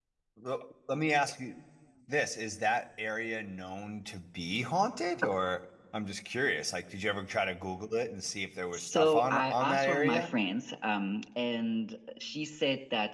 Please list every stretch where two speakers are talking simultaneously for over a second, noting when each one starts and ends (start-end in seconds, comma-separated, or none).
8.7-10.3